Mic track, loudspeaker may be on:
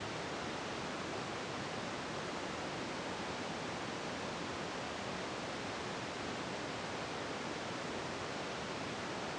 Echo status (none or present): none